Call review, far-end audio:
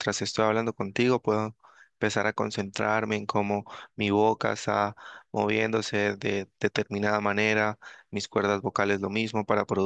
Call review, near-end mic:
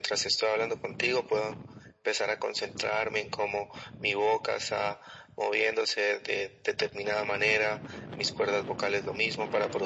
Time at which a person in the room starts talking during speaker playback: none

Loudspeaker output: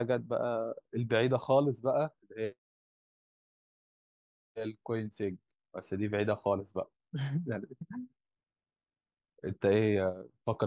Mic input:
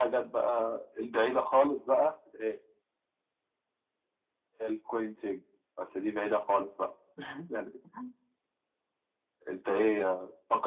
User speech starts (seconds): none

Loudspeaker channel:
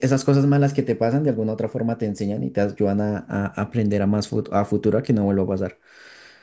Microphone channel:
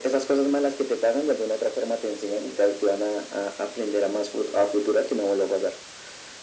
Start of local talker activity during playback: none

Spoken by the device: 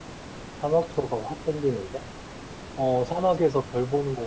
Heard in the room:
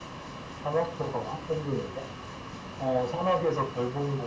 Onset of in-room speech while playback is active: none

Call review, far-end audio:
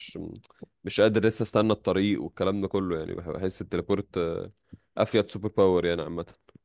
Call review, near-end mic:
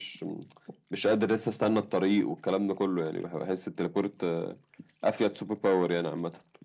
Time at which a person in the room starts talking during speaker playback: none

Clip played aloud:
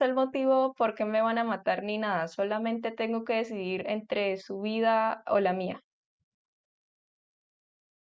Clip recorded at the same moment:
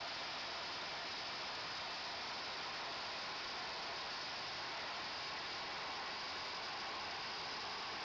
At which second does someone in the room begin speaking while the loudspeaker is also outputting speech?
none

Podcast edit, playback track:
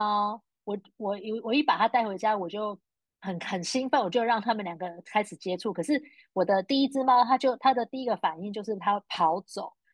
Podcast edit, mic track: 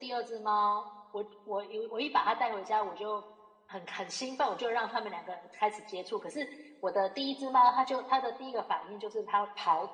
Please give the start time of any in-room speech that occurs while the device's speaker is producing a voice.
none

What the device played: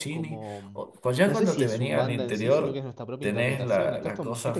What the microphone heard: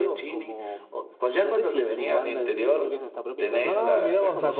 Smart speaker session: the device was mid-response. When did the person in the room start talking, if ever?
3.6 s

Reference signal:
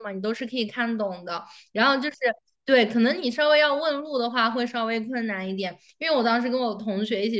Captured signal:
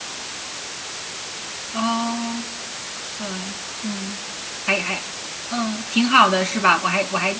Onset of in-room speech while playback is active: 1.7 s

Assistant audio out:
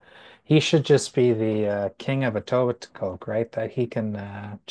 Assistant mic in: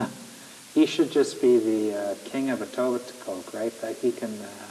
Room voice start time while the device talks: none

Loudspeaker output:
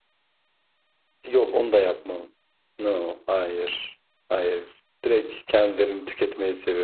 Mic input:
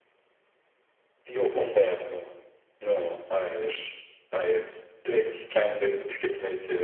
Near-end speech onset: none

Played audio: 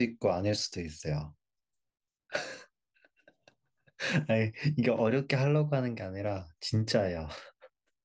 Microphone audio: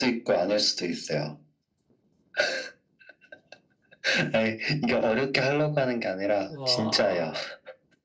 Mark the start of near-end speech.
6.5 s

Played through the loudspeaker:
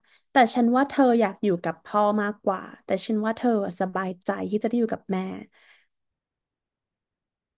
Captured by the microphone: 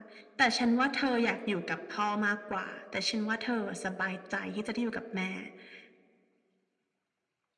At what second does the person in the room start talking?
none

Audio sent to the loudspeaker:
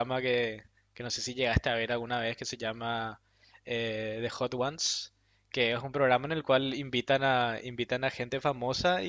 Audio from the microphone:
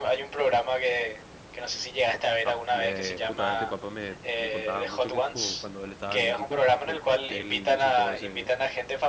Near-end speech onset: 2.4 s

